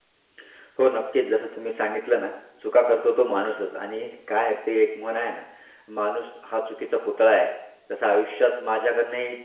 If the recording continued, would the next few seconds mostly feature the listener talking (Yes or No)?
No